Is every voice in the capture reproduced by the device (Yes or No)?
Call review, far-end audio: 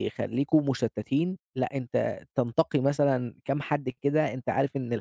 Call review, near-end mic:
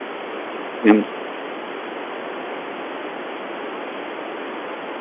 No